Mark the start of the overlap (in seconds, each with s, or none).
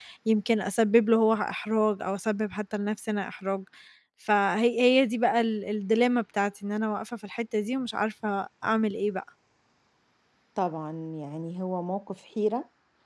none